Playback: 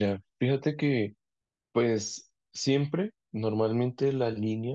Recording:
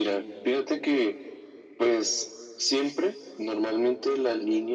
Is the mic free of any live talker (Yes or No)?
Yes